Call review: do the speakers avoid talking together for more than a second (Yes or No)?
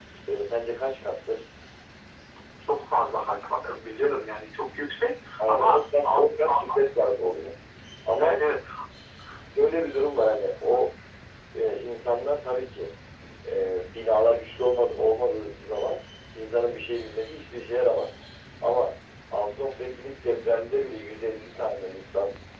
No